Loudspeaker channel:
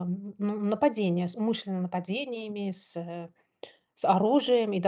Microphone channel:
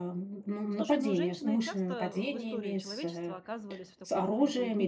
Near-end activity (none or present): present